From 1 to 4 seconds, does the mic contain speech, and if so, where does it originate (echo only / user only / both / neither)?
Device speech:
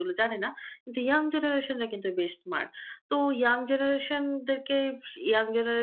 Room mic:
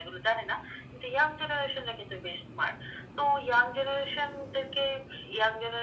echo only